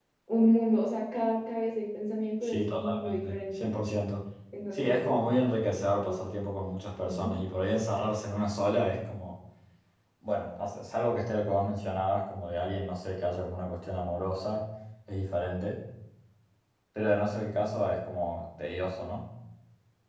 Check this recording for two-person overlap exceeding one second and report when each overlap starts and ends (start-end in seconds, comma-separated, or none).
2.4-3.7